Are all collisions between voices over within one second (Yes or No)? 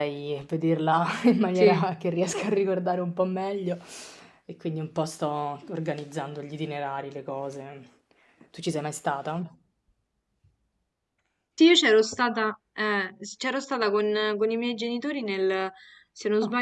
Yes